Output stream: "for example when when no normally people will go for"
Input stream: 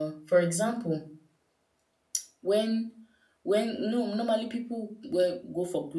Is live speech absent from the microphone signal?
Yes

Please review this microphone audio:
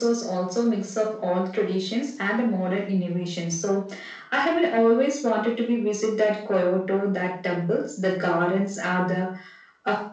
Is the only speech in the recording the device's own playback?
Yes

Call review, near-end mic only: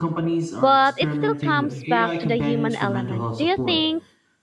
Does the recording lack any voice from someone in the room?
No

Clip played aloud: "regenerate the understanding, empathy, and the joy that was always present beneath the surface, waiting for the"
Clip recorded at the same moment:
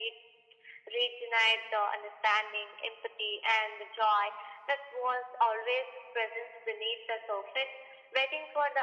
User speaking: No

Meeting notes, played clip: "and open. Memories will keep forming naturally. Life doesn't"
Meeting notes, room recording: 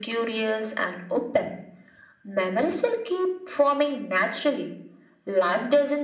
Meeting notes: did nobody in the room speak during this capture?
Yes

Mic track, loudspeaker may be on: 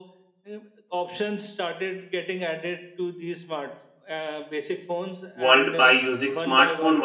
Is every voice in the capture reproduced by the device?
No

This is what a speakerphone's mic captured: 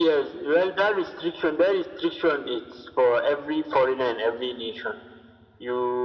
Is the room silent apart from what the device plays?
Yes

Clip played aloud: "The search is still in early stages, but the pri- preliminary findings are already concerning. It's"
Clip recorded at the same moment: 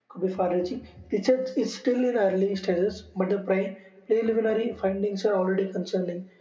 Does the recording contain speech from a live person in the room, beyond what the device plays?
No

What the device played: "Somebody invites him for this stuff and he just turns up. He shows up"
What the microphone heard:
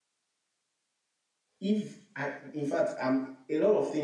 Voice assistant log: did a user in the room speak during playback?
Yes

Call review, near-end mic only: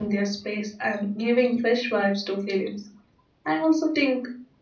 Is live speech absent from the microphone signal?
No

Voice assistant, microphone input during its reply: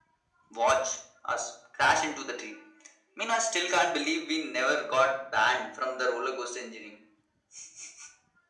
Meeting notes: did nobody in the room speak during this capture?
Yes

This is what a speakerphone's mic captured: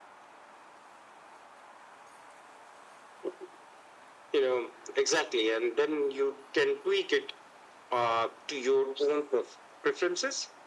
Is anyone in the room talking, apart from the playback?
No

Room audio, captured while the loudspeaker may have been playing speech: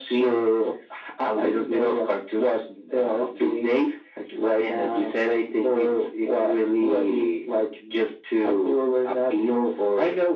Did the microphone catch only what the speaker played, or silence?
Yes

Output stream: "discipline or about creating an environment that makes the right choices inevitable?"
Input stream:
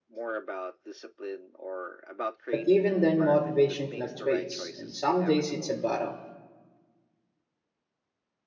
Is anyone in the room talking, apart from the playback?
Yes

